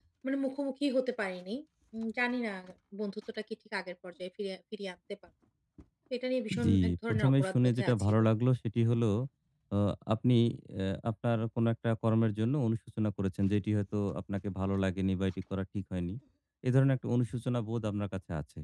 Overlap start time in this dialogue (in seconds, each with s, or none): 6.6 s